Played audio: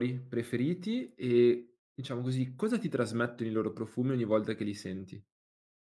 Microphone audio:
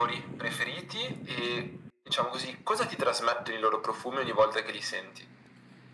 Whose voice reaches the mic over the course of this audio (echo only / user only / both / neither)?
echo only